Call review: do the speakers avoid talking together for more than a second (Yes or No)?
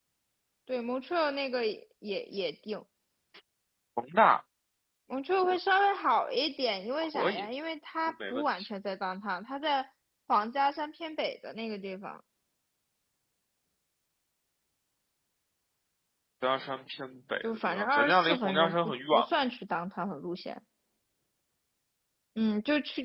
No